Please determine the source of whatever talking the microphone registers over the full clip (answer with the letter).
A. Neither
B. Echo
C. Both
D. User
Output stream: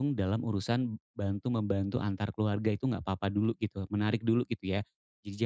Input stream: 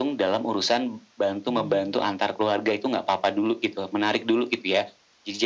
C